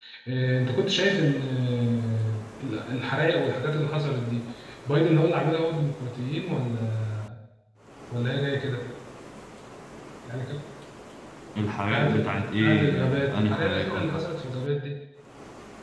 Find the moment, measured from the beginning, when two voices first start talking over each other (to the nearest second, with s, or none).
12 s